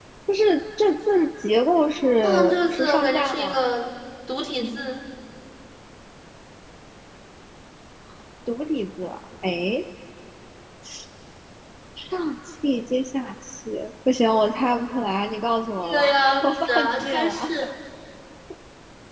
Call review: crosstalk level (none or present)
present